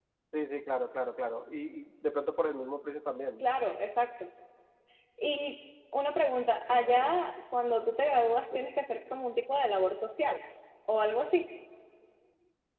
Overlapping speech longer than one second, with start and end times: none

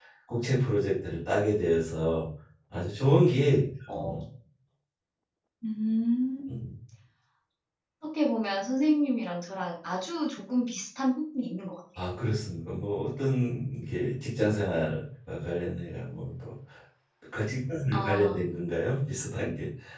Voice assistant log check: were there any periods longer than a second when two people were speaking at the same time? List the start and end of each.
none

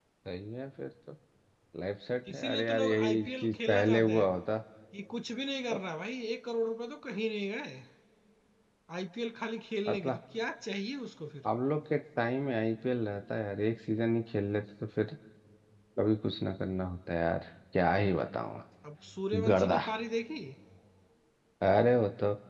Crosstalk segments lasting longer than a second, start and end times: 2.3-4.3

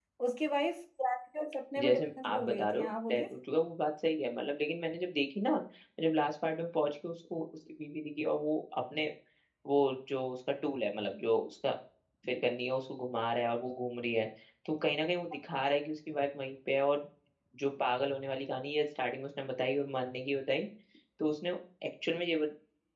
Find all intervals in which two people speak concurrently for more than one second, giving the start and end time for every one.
1.8-3.2

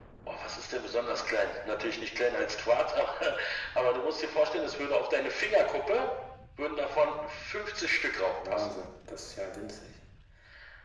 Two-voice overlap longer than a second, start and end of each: none

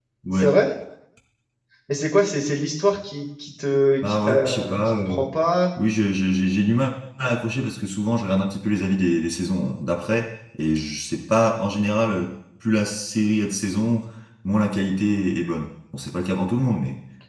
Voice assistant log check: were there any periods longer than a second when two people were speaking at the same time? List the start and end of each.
4.0-5.3

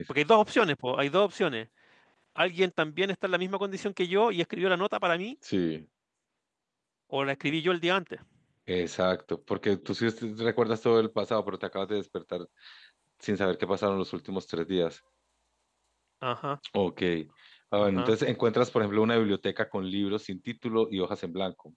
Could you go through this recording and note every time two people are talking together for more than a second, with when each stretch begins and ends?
none

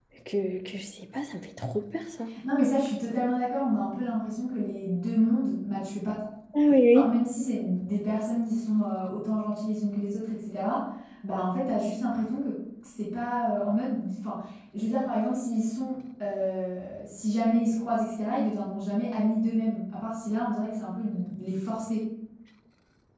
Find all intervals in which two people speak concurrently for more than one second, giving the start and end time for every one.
none

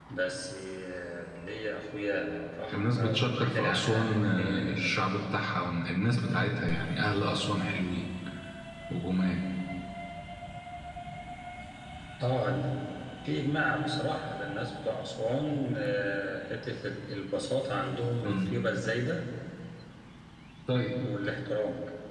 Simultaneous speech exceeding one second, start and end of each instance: 2.7-4.9

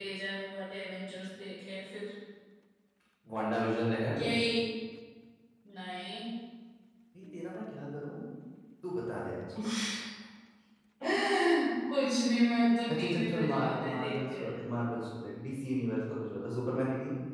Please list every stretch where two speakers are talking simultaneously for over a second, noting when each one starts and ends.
12.9-14.8

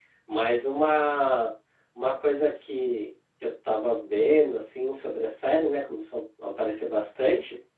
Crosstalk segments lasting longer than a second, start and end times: none

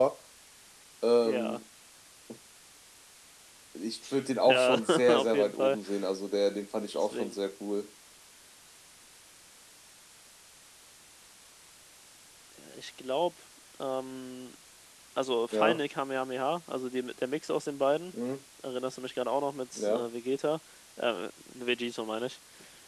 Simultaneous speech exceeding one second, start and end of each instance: 4.5-5.8

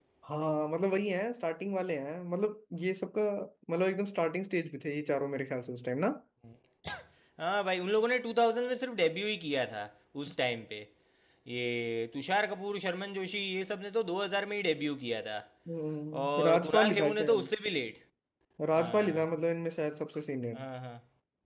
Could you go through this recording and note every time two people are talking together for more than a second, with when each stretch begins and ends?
16.2-17.5

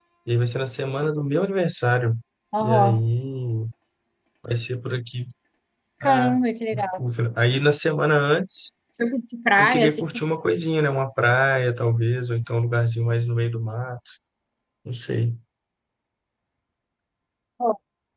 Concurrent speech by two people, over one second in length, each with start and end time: none

